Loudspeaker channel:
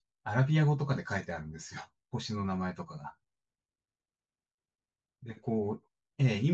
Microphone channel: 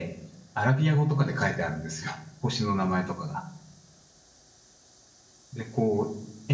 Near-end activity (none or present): none